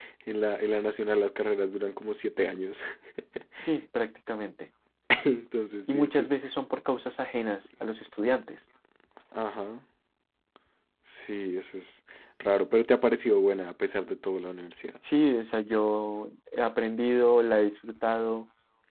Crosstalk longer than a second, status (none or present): none